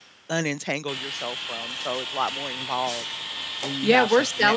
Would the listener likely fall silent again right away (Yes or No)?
No